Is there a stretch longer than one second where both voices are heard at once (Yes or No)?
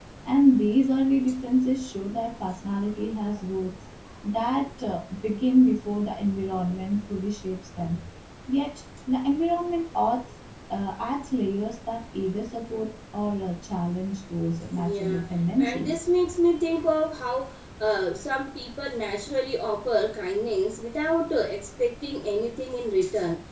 No